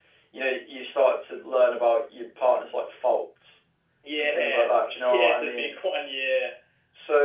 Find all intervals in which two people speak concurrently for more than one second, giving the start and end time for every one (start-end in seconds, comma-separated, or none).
4.2-5.7